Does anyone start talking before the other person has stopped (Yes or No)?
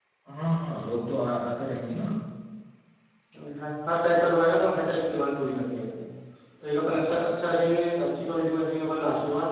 No